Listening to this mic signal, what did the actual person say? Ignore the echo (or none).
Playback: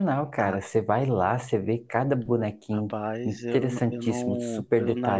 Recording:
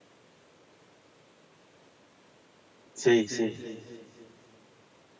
Sei, sei.